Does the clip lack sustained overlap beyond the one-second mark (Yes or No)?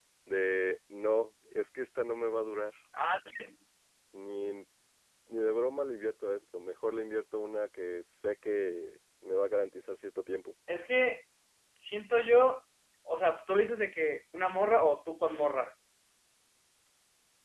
Yes